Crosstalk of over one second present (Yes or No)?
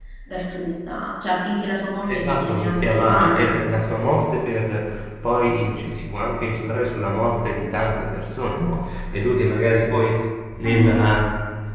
Yes